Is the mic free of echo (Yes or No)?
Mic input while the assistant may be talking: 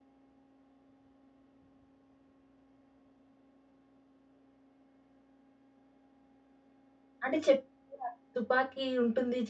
Yes